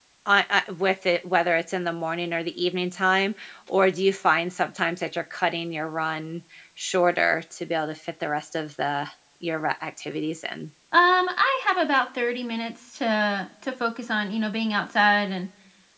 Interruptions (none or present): none